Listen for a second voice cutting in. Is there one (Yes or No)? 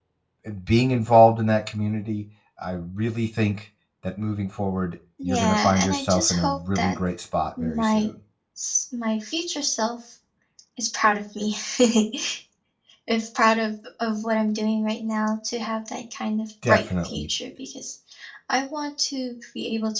Yes